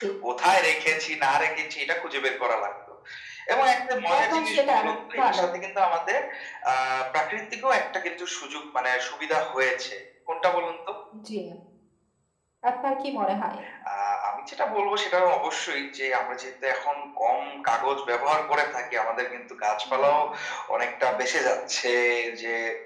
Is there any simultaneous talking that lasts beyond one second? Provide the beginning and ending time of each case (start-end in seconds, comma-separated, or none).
4.2-5.5